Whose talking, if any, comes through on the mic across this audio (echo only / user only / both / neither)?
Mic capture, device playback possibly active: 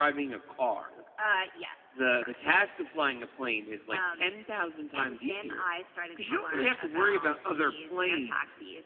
echo only